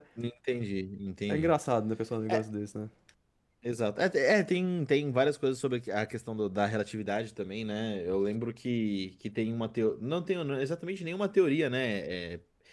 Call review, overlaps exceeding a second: none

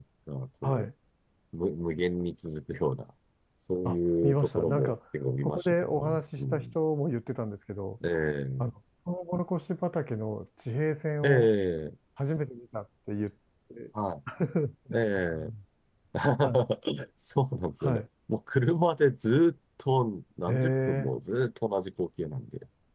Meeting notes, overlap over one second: present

